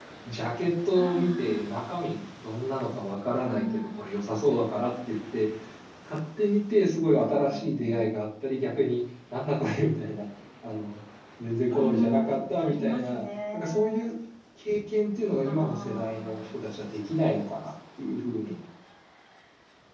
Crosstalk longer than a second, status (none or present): present